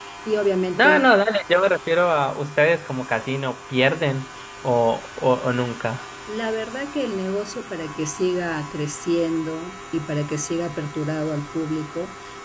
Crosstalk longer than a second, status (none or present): none